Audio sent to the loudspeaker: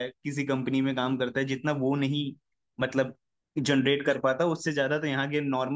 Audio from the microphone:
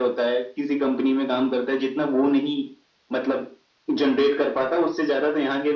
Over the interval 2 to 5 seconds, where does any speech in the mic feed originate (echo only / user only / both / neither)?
echo only